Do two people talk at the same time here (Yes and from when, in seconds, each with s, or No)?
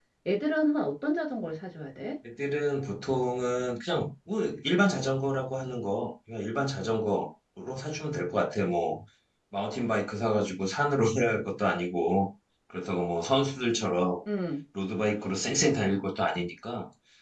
No